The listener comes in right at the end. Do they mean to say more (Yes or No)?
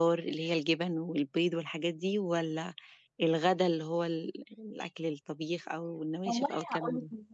Yes